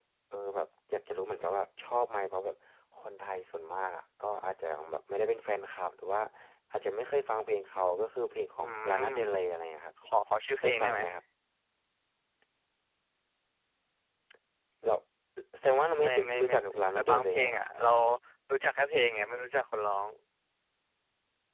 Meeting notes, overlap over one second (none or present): present